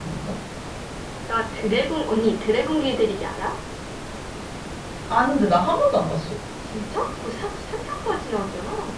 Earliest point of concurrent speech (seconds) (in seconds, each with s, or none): none